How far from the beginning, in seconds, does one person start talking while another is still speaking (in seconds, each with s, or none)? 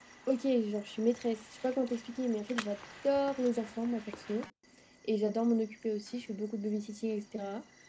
none